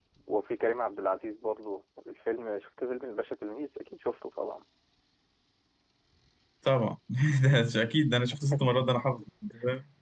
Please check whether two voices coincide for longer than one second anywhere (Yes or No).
No